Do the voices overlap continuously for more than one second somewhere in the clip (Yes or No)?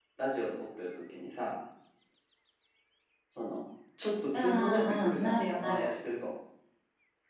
Yes